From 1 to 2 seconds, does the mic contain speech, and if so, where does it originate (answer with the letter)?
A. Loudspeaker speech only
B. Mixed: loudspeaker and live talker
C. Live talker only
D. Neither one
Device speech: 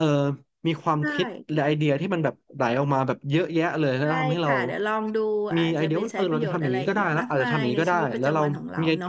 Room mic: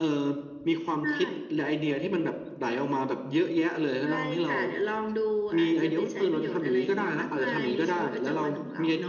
A